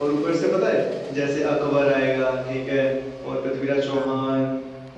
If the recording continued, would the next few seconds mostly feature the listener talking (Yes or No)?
No